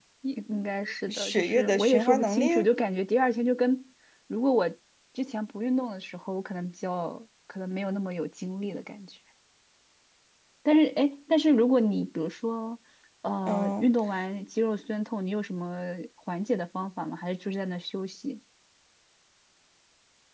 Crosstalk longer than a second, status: present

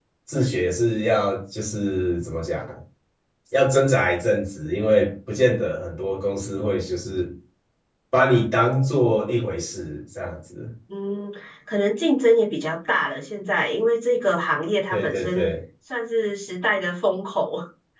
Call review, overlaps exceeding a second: none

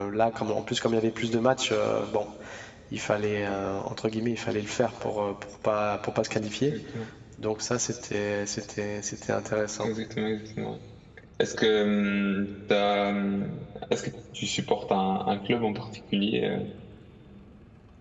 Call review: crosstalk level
none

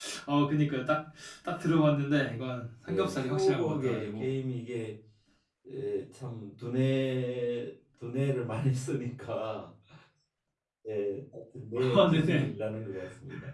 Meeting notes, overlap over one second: present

